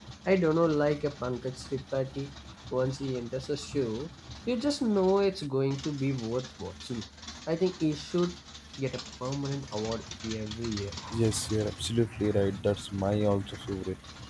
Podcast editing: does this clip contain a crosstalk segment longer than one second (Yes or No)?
No